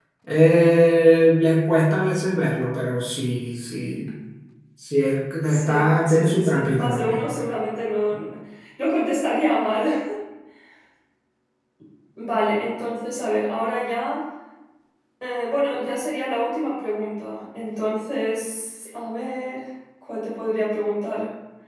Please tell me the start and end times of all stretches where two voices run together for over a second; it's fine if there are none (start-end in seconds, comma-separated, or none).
5.5-7.2